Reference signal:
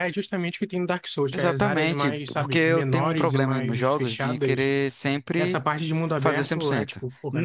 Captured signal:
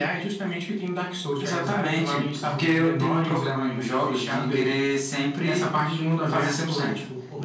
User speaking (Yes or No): No